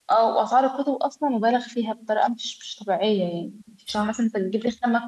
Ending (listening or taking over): listening